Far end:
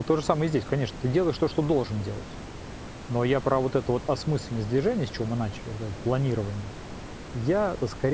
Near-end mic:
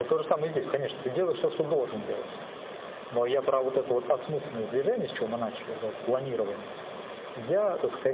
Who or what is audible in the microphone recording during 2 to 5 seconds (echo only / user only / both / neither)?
echo only